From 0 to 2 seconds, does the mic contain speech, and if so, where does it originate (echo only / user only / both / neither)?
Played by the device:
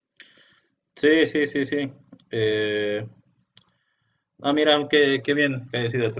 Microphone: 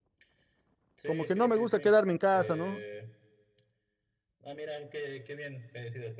both